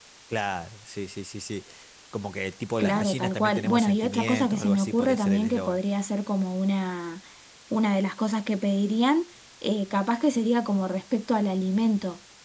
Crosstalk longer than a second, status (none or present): present